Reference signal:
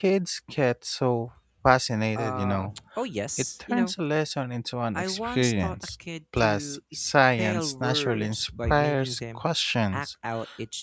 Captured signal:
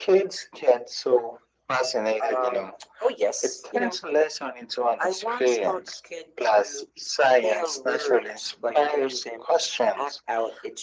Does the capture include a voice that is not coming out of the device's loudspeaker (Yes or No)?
No